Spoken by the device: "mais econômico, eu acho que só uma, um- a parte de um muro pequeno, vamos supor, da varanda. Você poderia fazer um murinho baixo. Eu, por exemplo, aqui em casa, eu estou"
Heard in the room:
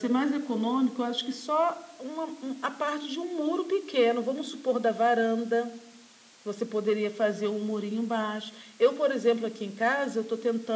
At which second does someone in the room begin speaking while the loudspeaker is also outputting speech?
none

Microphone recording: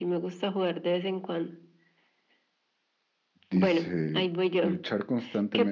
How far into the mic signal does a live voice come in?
3 s

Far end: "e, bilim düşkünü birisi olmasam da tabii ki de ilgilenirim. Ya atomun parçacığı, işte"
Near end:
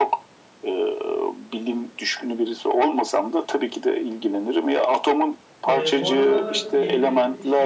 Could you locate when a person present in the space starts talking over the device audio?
6 s

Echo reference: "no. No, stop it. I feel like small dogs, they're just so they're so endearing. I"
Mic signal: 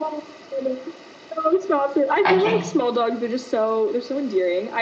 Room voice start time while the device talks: 2 s

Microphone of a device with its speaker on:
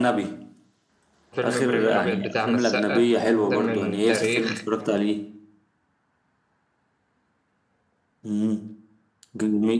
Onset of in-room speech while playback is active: 1 s

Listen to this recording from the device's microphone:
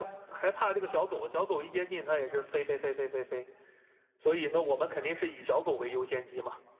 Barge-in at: none

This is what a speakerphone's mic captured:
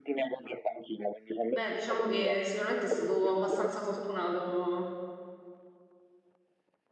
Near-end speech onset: 1 s

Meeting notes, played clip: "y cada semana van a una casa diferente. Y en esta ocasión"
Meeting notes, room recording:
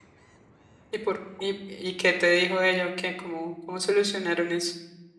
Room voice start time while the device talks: 1 s

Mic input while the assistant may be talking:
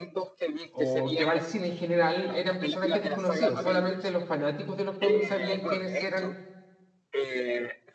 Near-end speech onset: 1 s

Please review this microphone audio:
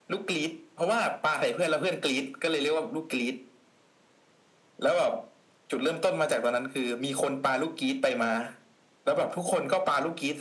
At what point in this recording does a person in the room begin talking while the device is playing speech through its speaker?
none

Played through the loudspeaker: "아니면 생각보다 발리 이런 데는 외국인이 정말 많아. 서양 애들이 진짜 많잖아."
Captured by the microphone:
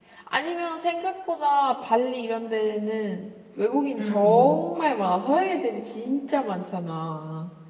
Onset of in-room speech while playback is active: 4 s

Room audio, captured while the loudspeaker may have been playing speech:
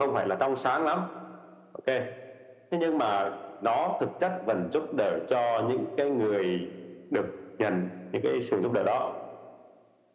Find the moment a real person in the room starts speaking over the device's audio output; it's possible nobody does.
none

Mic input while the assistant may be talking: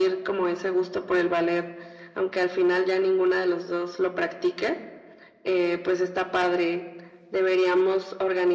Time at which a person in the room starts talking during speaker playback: none

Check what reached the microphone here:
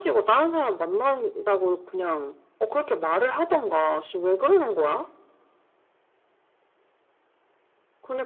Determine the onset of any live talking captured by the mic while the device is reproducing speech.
none

